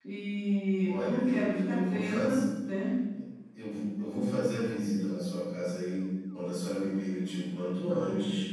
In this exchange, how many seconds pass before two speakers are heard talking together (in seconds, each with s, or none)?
0.8 s